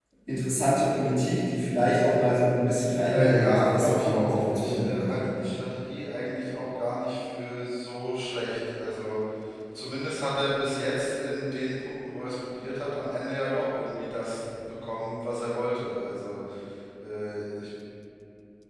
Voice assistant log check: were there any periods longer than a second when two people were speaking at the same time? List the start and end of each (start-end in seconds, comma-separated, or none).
3.1-5.2